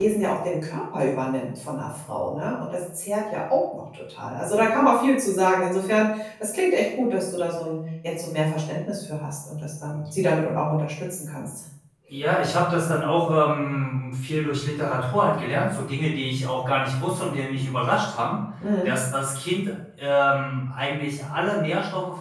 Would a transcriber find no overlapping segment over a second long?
Yes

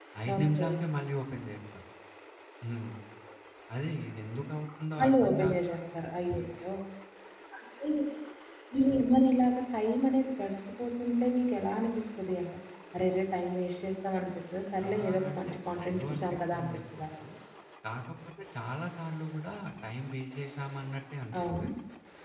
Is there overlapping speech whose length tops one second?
Yes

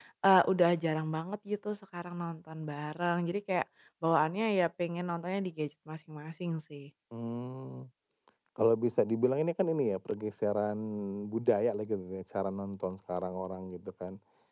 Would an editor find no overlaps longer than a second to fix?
Yes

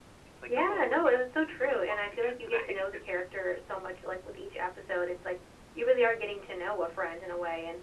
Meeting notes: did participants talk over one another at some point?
Yes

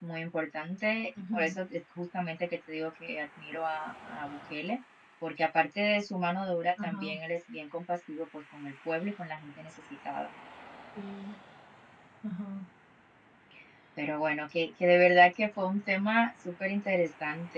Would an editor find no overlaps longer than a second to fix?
Yes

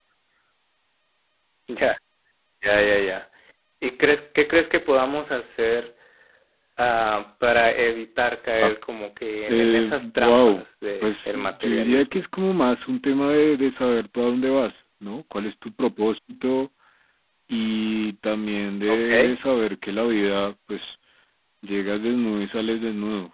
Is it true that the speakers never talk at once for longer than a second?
No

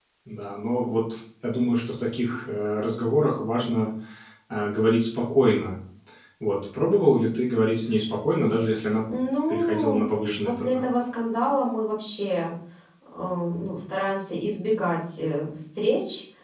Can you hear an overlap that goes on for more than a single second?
Yes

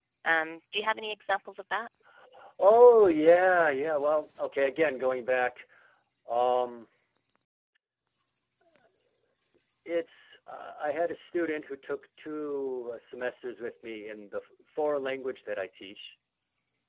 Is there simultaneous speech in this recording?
No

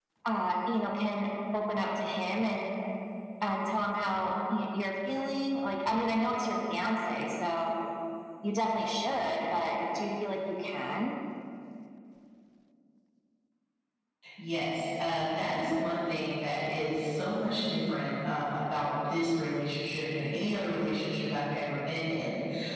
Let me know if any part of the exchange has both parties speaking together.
No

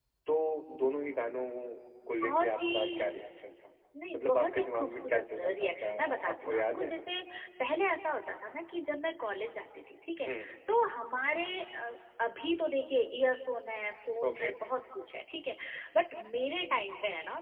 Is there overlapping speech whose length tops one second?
Yes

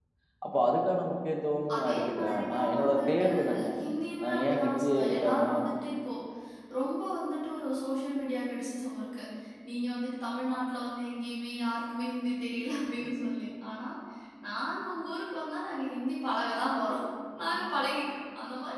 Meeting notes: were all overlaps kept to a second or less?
No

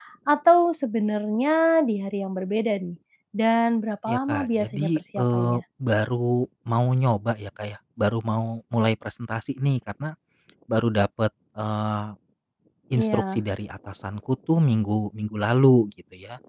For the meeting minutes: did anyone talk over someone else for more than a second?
Yes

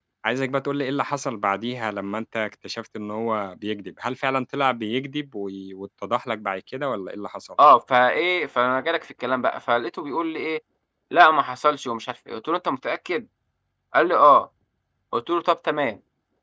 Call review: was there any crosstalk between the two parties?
No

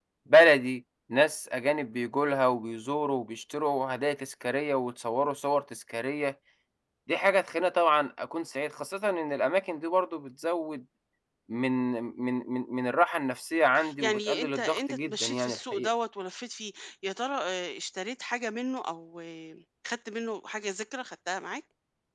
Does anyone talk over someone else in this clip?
Yes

